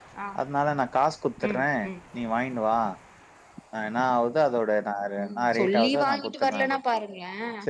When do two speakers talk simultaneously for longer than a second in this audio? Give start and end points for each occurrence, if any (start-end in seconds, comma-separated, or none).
5.2-6.8